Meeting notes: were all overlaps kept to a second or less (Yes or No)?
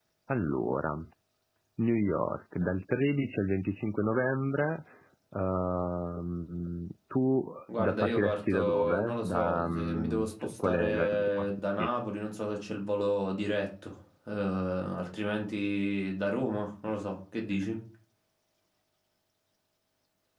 No